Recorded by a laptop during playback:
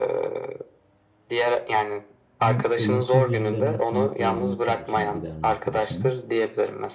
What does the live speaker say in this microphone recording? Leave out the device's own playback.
Senin olumsuz yönlerini sana söylemesi hoşuna gider mi arkadaşının?

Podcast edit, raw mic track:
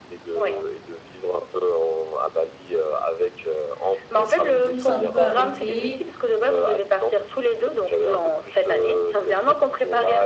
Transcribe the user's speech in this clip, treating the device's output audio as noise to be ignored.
Ils sont tous un peu arrêtés.

